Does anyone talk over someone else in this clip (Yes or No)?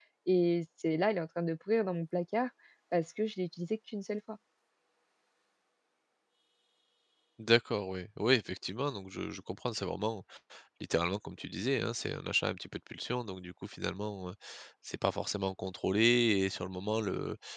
No